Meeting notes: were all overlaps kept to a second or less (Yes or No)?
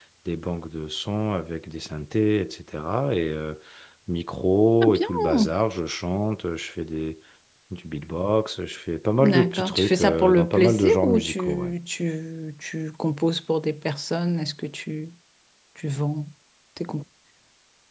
No